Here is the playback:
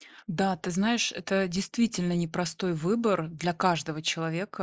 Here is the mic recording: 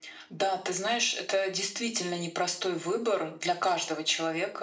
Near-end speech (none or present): none